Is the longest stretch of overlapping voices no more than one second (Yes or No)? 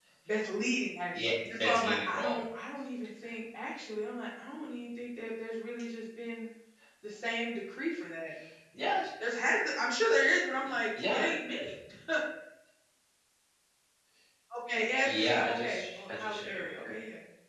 No